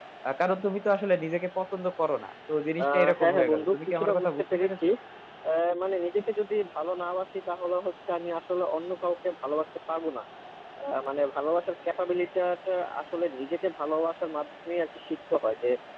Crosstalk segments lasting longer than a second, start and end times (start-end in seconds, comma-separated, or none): 2.9-4.8